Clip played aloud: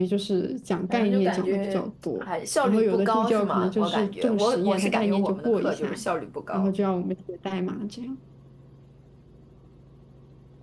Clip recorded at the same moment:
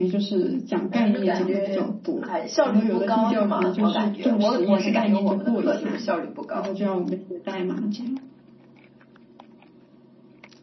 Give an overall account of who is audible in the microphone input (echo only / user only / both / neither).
echo only